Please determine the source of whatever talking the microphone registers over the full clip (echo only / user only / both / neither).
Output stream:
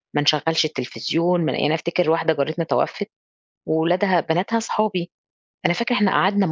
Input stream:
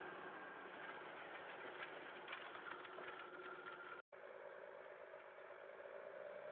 neither